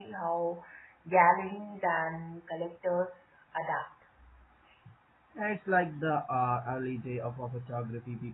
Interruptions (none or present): none